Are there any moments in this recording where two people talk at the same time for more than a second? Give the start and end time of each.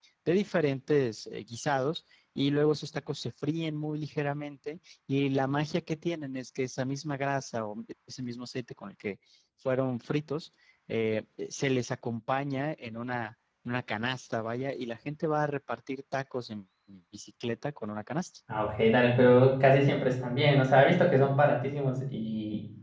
none

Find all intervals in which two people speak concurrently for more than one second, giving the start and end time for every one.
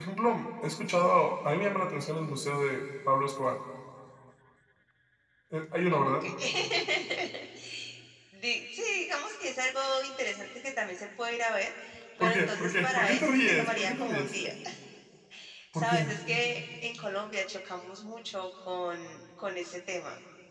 12.2-14.3

